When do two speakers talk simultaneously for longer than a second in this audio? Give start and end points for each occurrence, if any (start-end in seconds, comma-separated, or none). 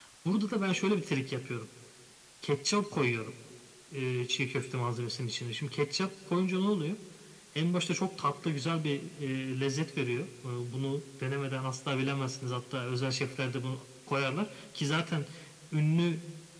none